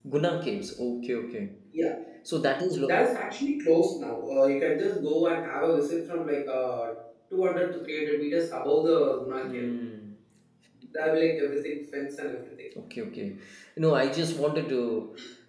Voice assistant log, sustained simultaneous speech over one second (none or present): none